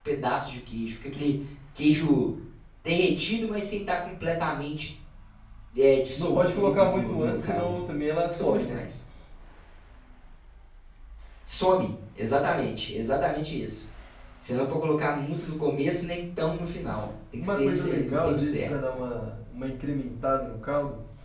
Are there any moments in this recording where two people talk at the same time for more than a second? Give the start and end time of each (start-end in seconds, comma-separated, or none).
6.2-7.8, 17.4-18.7